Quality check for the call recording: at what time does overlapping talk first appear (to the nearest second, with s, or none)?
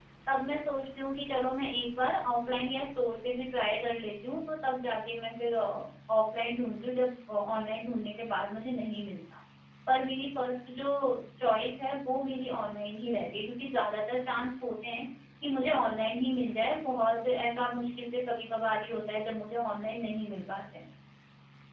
none